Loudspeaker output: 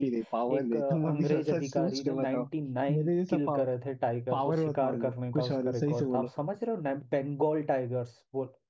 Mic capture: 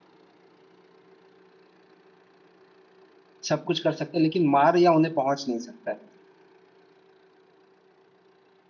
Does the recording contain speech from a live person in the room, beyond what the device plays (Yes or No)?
Yes